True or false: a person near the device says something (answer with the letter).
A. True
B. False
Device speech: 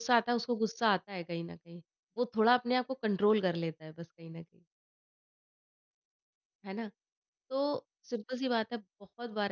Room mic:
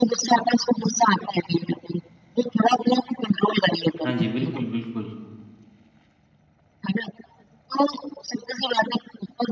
A